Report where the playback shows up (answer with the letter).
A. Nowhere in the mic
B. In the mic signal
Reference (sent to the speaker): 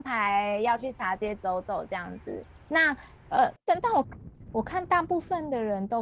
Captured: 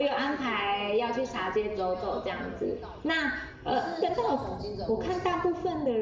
B